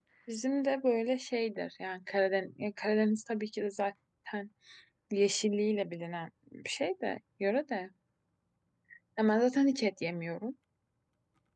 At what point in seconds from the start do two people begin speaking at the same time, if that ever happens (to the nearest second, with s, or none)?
none